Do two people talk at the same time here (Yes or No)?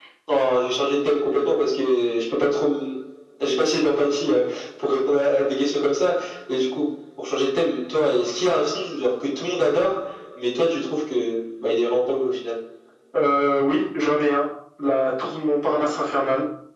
No